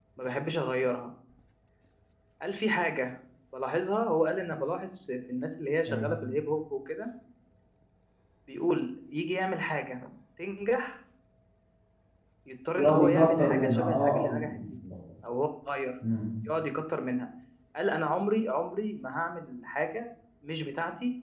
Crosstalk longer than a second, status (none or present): present